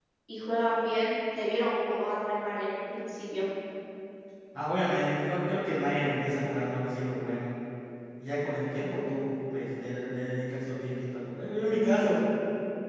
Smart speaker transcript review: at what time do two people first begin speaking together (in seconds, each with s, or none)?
none